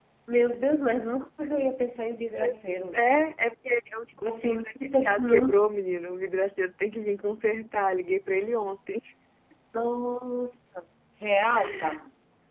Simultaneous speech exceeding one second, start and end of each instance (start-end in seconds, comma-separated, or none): 4.2-5.6